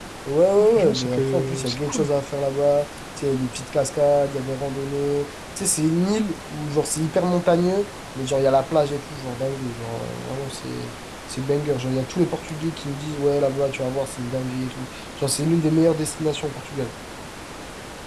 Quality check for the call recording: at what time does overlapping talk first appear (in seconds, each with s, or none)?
0.8 s